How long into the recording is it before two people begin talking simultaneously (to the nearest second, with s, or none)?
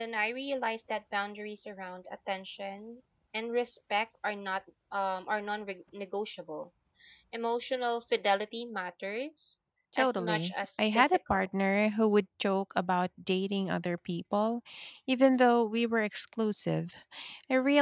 10 s